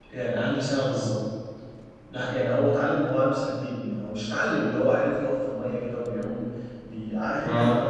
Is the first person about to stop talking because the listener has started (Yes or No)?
No